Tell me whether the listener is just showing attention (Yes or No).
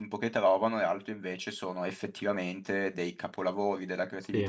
Yes